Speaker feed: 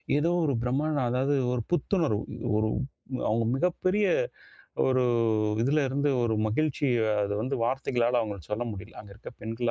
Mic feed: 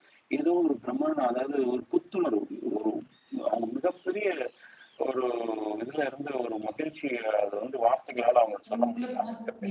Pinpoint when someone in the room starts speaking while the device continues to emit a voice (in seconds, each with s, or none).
8.7 s